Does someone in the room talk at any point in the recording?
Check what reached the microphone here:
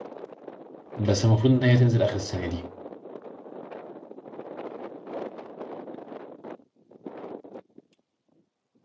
Yes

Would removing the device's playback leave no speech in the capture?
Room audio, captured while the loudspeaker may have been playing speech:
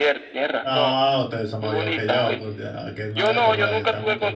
No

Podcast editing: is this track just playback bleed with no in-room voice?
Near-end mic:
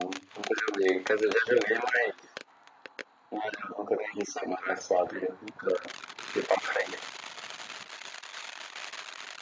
Yes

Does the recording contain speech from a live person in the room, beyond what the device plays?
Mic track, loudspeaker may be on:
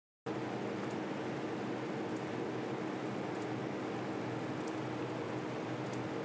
No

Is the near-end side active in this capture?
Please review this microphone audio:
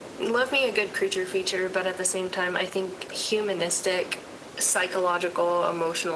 No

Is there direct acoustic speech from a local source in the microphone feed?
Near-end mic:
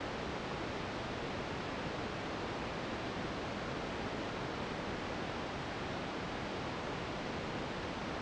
No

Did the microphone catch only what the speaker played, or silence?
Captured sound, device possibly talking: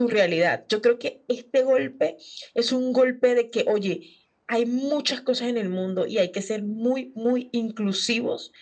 Yes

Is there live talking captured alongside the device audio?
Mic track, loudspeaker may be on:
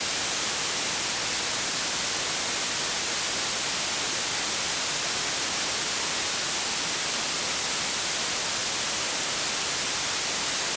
No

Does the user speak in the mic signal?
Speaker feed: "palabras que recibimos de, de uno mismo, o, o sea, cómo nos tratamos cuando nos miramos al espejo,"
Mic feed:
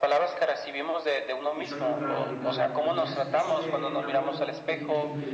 Yes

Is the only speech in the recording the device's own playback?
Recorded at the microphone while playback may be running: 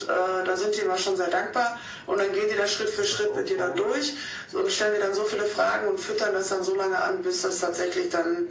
No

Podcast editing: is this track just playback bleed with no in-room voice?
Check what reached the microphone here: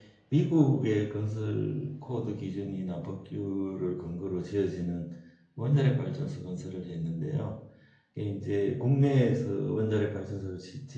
Yes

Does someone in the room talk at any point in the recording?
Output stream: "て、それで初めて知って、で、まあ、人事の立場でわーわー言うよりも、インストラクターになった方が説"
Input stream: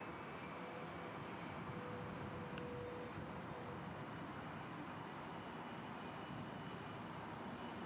No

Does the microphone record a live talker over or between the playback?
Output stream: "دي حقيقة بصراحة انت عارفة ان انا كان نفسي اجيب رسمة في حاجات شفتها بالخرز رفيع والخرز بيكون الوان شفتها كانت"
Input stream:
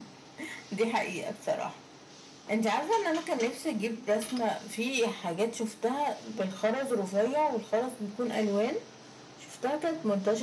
No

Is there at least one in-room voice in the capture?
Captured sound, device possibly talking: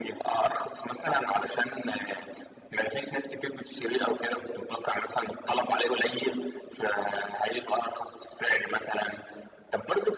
No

